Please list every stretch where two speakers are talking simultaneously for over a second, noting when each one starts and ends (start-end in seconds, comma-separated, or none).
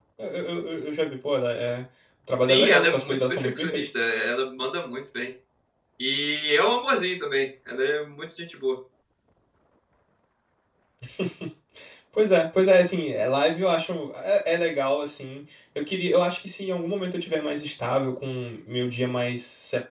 2.5-3.8